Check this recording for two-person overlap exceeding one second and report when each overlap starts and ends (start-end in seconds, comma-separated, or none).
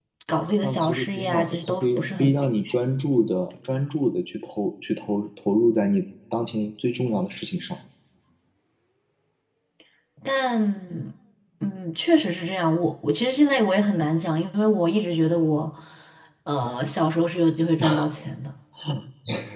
0.6-2.3